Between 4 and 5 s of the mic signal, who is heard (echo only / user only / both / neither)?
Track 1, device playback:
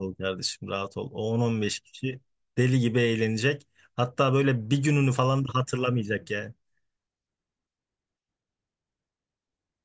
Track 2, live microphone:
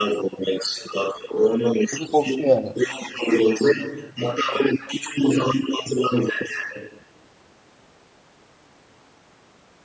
echo only